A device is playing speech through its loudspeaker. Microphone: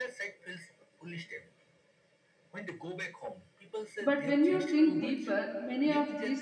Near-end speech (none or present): present